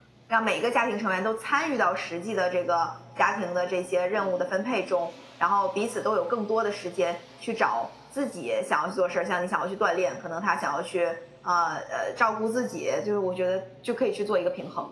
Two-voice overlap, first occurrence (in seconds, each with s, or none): none